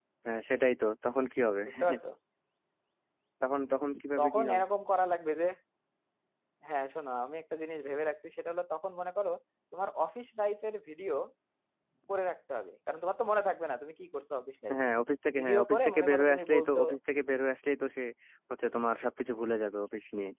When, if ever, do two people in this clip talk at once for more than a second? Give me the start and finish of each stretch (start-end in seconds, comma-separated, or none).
15.4-16.8